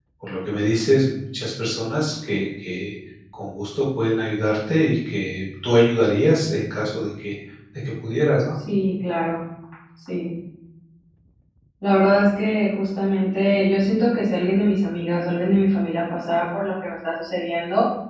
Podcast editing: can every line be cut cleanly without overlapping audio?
Yes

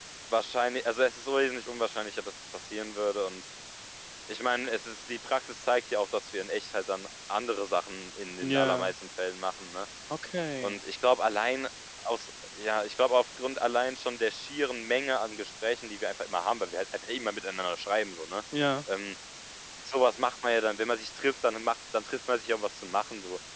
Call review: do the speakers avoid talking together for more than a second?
Yes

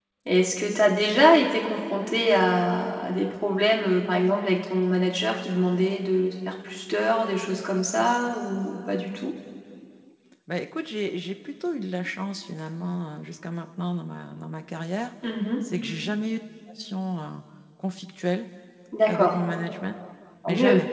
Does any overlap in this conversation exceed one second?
No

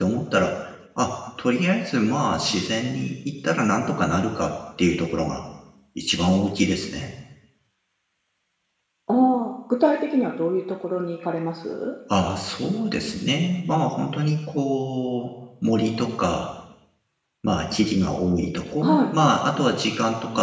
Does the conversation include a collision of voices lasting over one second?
No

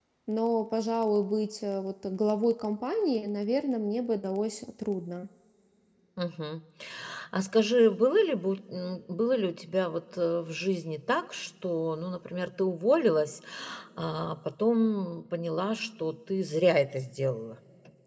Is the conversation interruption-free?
Yes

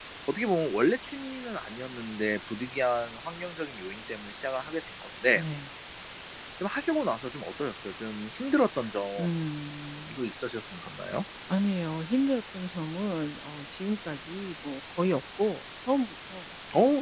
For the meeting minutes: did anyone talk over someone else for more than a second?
No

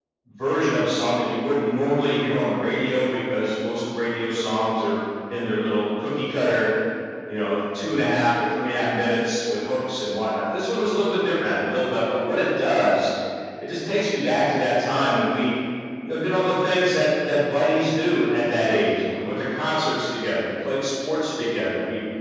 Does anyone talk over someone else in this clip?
No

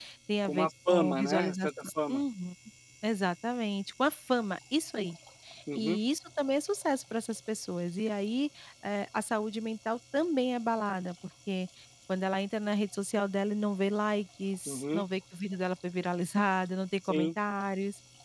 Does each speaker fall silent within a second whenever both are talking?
No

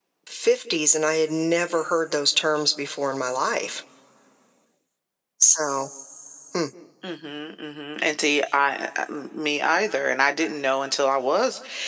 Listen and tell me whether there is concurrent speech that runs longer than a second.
No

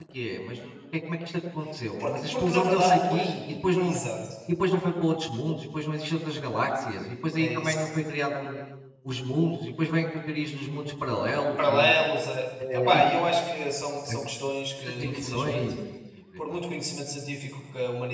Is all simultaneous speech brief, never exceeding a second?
No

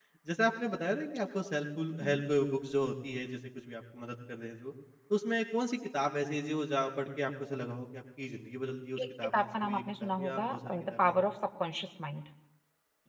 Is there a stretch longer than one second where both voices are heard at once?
Yes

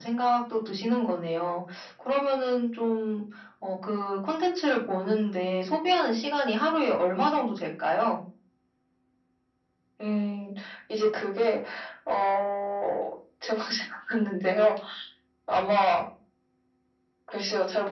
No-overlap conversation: Yes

